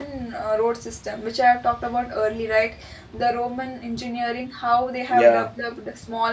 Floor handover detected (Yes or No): No